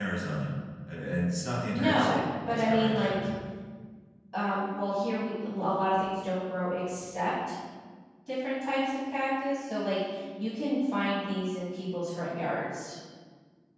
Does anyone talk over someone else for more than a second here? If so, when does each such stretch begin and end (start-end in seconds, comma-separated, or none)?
1.7-3.1